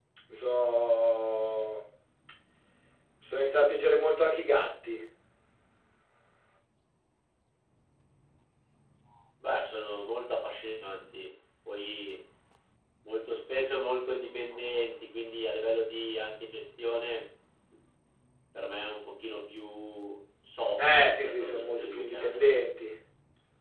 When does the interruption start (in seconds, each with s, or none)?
20.8 s